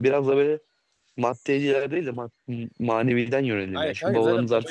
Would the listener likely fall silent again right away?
No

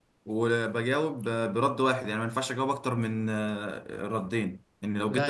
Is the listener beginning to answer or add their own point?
No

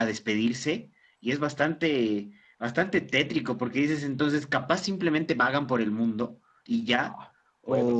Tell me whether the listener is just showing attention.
No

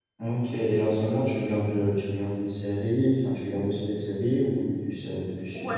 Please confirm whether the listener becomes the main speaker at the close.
Yes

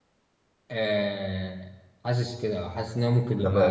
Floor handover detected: Yes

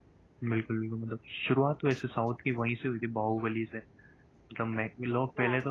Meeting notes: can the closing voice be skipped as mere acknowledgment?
Yes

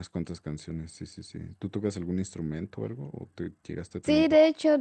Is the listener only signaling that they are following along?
No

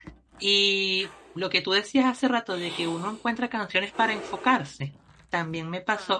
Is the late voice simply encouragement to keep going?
Yes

